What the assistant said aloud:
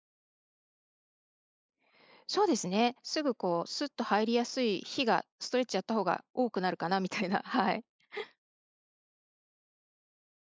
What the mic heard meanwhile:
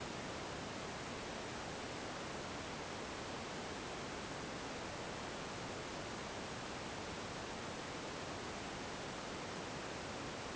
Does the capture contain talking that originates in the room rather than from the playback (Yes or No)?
No